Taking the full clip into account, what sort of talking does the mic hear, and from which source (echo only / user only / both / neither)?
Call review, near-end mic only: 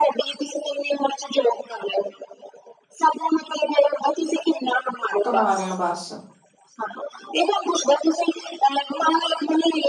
both